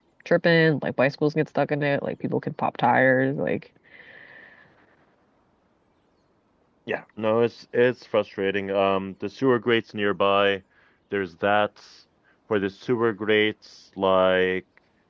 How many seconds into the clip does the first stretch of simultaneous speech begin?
none

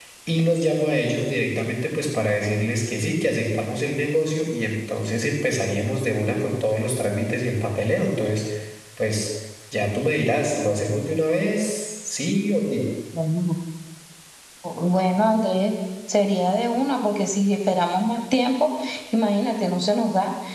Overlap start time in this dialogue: none

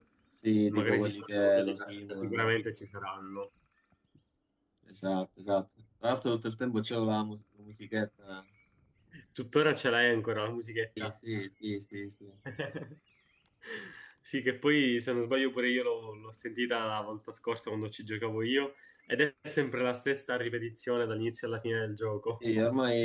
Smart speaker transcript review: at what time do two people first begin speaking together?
0.7 s

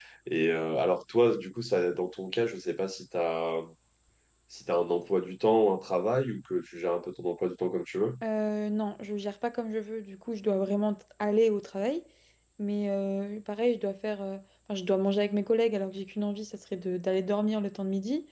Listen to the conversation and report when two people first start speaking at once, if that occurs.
none

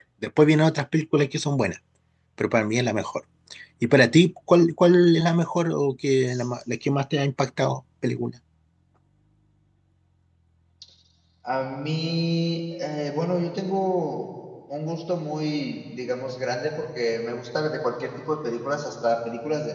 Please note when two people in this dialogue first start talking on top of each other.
none

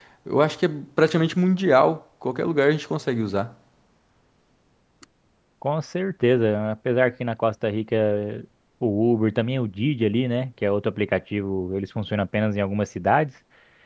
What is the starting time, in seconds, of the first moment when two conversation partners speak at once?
none

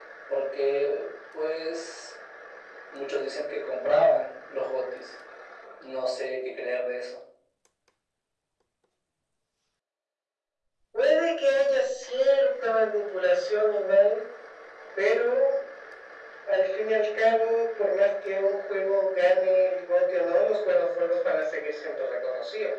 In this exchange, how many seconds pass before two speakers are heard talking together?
none

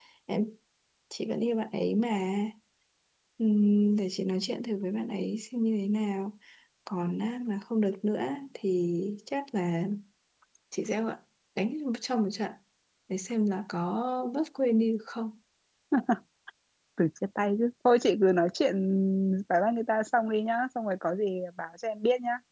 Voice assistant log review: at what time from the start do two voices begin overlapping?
none

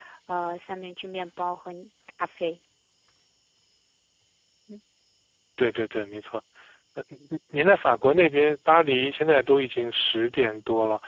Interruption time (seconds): none

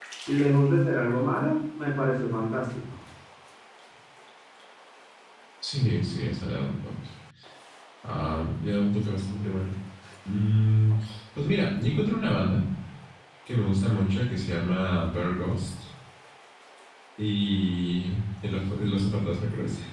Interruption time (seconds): none

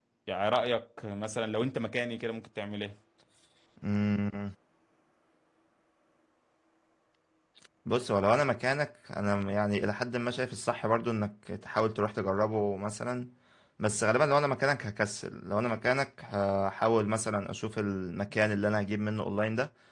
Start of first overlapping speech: none

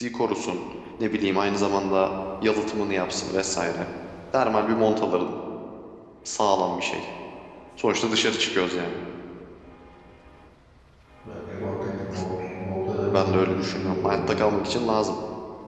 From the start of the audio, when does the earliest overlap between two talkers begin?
13.1 s

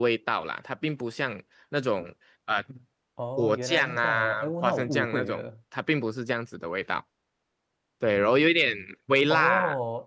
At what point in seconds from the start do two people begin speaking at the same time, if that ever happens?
3.4 s

